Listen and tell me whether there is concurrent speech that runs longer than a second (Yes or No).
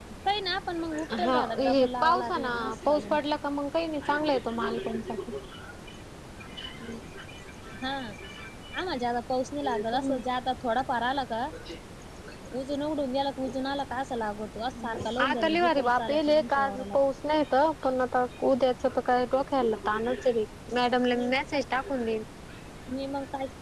Yes